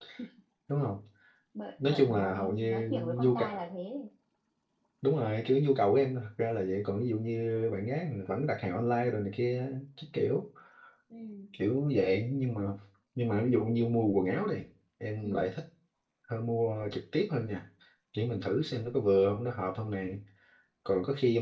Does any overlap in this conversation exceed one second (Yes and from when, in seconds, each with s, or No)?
Yes, from 1.8 s